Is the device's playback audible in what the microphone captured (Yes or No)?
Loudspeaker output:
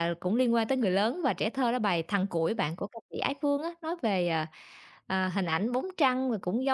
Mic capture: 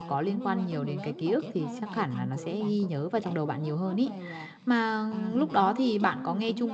Yes